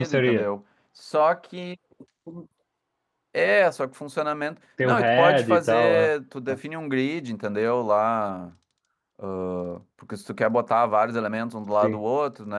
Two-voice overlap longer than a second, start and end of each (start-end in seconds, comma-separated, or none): 4.8-6.1